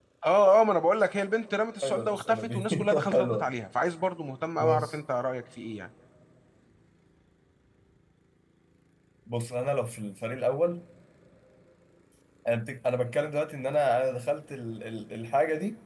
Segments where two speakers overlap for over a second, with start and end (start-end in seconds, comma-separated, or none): 1.8-3.5